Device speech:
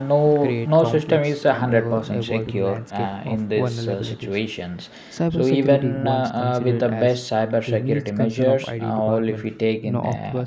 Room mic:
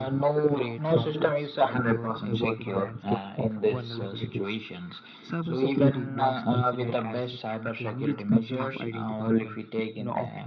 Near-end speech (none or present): none